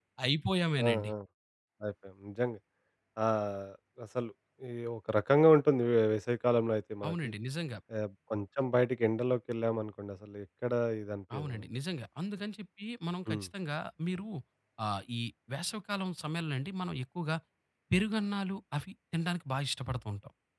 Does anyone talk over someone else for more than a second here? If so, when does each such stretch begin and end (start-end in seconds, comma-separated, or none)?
none